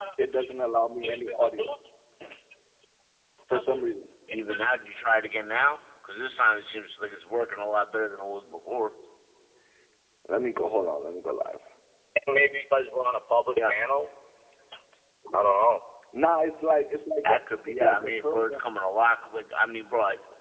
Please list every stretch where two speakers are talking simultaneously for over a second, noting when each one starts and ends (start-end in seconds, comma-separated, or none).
17.2-18.6